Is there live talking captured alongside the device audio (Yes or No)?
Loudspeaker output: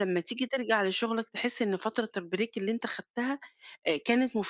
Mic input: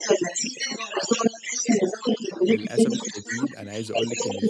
Yes